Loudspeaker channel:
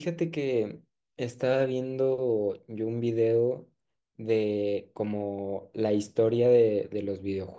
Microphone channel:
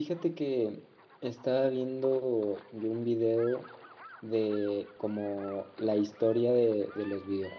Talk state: echo only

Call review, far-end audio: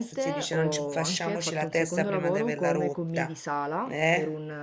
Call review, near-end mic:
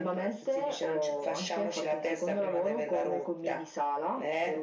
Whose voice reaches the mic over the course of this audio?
echo only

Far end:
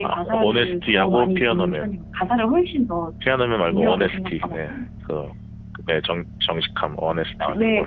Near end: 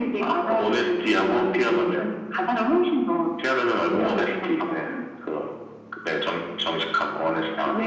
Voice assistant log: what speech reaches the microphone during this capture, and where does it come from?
echo only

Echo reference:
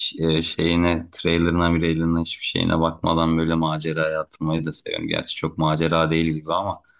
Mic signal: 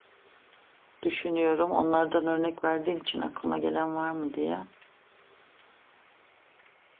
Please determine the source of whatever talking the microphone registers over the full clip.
user only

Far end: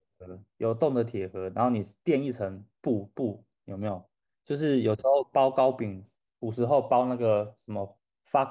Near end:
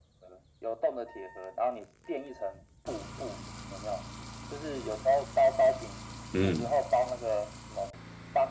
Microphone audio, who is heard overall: both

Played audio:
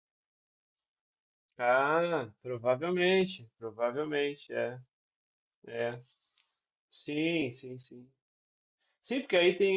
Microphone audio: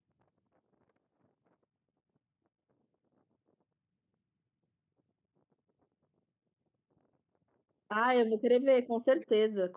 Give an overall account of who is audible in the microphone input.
user only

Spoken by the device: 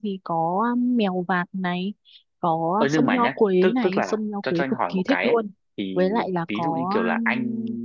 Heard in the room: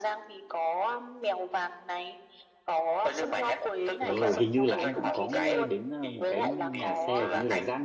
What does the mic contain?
both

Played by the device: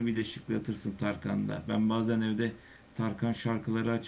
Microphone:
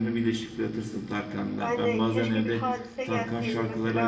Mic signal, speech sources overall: both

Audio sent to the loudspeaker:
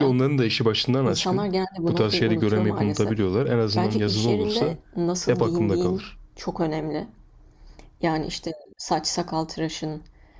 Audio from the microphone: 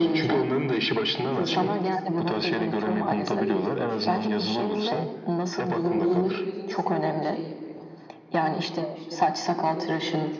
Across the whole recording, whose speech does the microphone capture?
both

